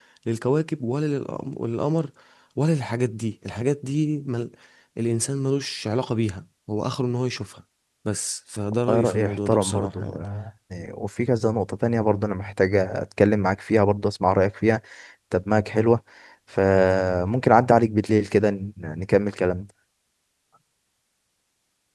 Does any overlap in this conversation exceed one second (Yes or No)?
Yes